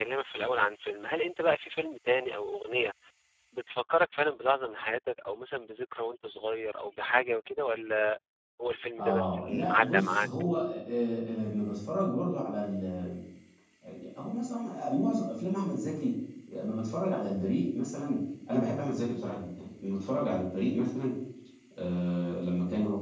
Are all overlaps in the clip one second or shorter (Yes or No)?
No